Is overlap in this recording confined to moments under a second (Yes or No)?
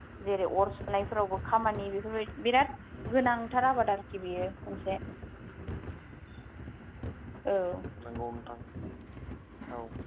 Yes